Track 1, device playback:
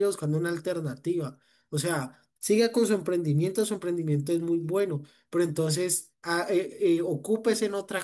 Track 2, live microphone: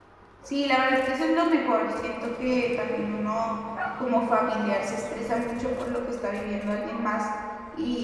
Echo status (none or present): none